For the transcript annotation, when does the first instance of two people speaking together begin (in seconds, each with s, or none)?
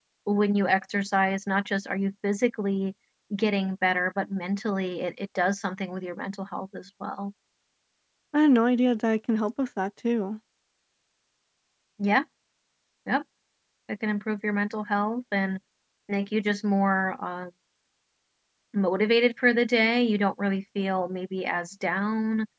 none